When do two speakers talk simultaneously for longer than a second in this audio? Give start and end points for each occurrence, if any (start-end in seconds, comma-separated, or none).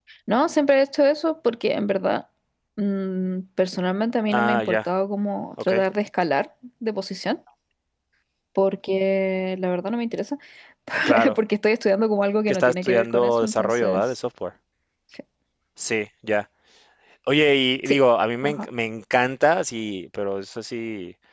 12.5-14.0